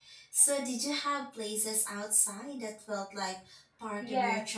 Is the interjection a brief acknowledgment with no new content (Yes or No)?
No